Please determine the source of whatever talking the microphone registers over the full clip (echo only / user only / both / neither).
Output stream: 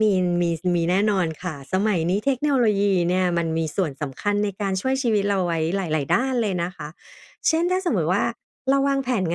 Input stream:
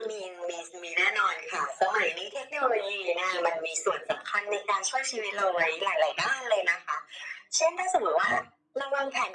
echo only